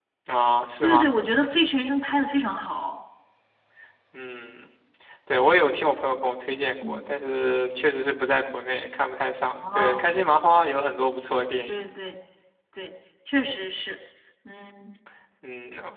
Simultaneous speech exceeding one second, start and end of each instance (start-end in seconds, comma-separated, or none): none